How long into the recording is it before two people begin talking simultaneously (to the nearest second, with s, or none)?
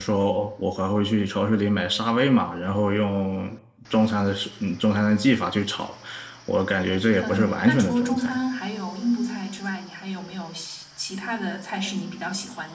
7 s